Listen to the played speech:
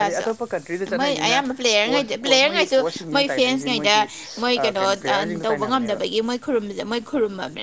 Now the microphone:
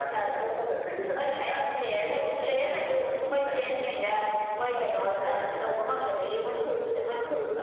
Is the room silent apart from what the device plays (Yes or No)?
Yes